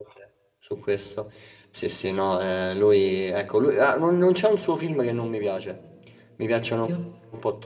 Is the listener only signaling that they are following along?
Yes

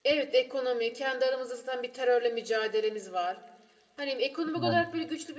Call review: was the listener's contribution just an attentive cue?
Yes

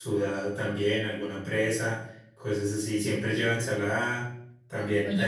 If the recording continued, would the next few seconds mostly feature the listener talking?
Yes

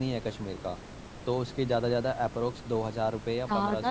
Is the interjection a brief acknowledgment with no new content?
No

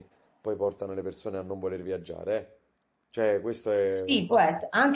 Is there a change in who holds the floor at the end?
Yes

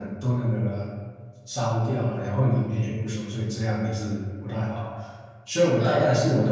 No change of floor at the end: Yes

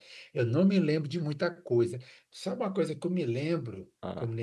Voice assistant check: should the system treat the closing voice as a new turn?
No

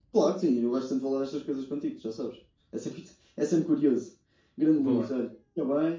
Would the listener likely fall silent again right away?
Yes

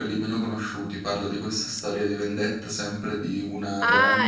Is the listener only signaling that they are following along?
No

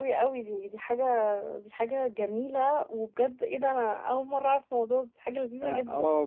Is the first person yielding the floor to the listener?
Yes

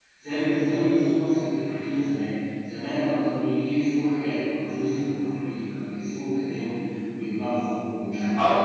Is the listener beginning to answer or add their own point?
Yes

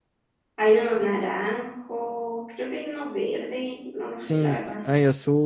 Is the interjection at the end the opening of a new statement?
Yes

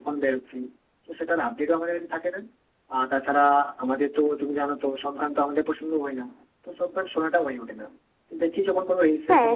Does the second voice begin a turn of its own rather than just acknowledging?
No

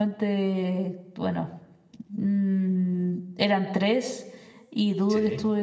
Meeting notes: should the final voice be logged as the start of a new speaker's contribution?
No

